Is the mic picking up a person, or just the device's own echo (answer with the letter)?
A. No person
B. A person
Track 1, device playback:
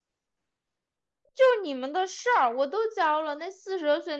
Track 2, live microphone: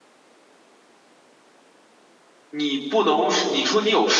B